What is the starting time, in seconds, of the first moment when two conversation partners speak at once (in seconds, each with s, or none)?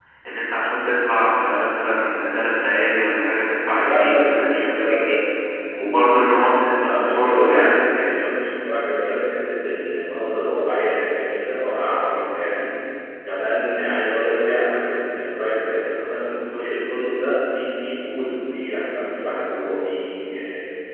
3.8 s